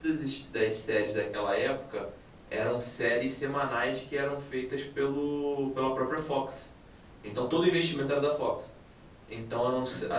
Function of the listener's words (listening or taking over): listening